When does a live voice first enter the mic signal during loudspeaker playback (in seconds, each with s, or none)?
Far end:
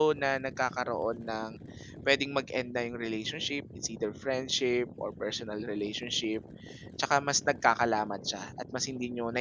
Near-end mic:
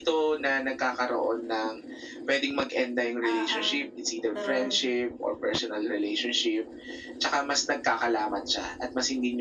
3.3 s